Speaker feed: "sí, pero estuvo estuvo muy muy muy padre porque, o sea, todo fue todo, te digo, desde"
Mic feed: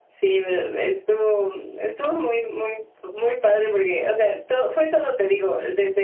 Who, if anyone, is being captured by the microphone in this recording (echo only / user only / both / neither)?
echo only